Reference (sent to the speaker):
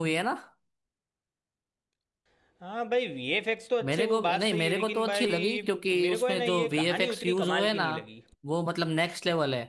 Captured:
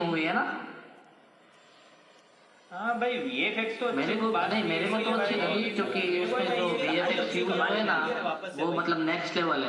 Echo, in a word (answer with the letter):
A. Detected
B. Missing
A